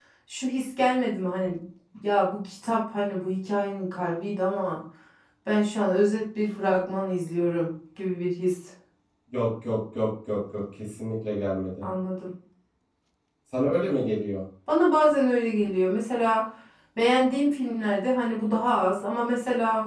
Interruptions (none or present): none